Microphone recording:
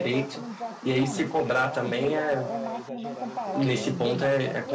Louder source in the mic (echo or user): user